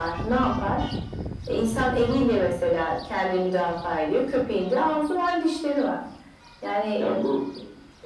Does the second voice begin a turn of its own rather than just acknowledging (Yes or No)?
Yes